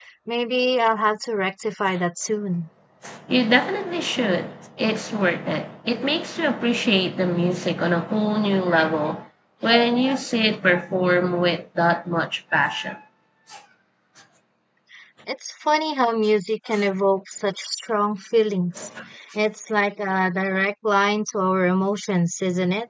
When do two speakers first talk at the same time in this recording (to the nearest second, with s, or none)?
none